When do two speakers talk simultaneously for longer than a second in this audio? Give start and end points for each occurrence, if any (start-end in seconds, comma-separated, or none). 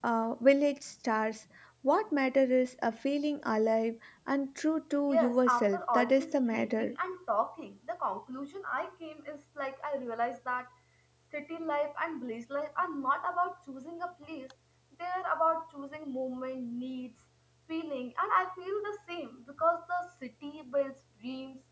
5.1-7.0